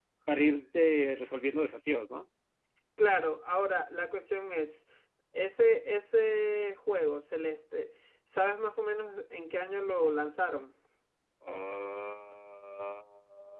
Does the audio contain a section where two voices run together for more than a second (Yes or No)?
No